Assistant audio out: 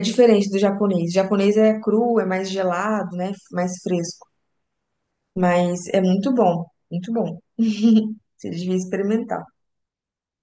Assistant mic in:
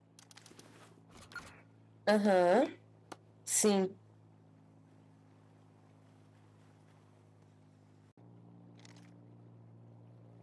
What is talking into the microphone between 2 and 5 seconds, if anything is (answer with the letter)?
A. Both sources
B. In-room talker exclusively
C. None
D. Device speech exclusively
B